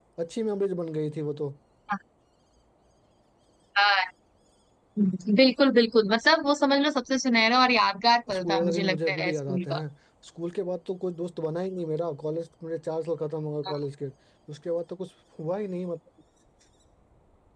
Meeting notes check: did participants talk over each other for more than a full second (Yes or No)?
Yes